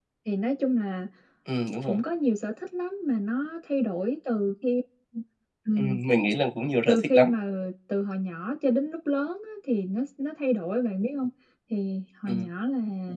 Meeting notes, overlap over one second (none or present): none